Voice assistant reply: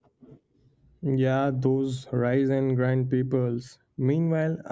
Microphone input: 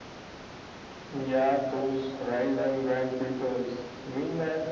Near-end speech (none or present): none